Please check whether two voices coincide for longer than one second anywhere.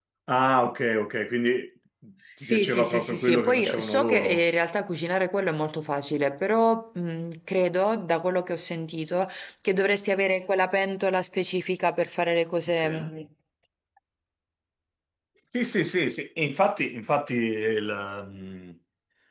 Yes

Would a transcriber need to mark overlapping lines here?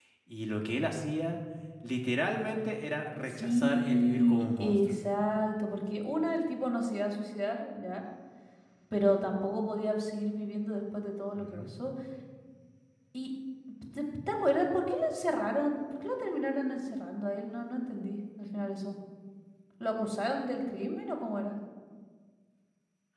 Yes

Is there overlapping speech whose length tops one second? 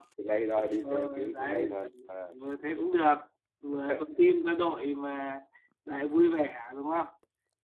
Yes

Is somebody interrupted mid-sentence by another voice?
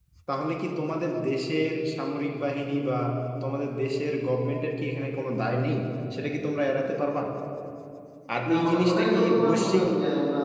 Yes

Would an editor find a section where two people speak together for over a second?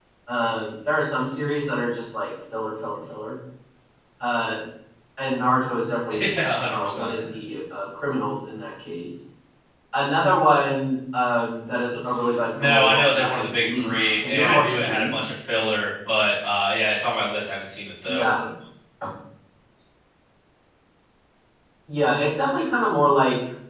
Yes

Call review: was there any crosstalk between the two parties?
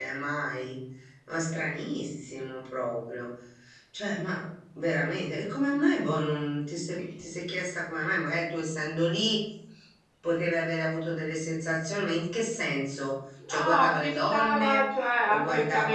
Yes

